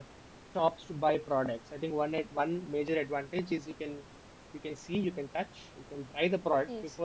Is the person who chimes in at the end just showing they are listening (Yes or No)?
Yes